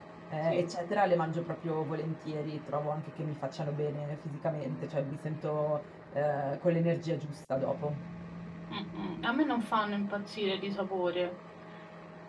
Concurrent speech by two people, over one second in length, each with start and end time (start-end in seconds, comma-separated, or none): none